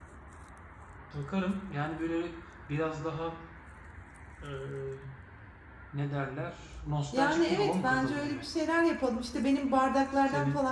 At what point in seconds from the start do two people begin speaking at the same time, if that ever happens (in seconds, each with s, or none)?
7.1 s